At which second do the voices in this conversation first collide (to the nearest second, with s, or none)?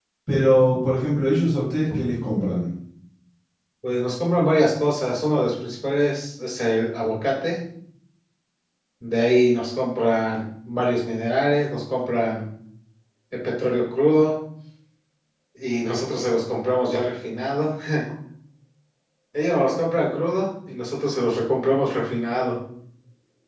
none